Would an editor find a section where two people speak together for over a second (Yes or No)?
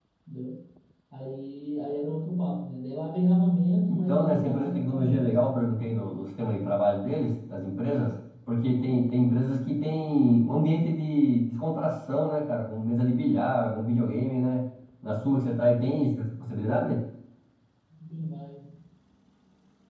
Yes